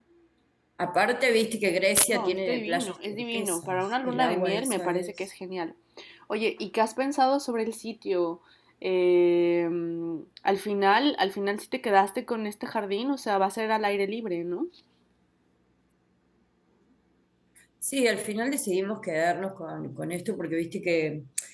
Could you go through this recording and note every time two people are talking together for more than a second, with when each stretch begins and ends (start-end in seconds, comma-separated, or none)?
2.1-5.3